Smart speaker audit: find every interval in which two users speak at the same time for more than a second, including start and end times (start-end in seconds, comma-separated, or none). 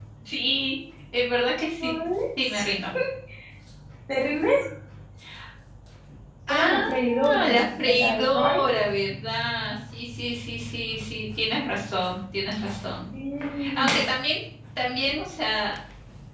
6.5-8.6